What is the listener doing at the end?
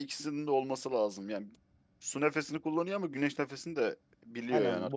taking over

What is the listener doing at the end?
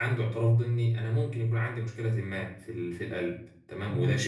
listening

